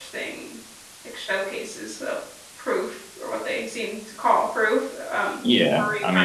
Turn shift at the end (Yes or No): Yes